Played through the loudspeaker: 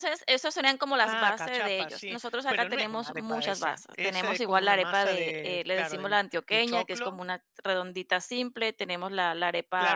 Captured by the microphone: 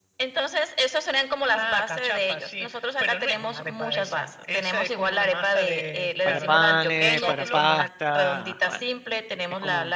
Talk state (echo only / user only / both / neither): both